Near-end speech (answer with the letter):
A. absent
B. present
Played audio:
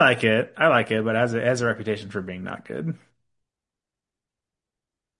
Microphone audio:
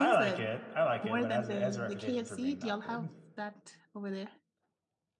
B